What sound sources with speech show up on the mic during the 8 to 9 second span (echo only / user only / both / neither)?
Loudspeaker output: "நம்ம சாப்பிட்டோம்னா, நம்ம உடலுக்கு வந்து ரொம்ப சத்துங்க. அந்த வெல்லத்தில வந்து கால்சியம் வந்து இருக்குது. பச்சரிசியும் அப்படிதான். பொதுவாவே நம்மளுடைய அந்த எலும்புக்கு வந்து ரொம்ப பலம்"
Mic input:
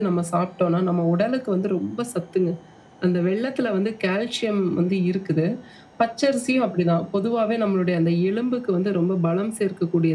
echo only